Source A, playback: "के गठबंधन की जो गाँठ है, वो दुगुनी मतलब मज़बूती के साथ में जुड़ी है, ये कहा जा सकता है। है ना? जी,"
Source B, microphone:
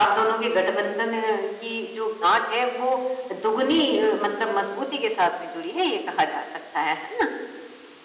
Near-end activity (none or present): none